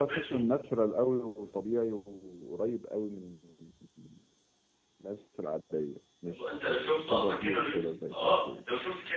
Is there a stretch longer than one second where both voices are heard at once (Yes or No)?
Yes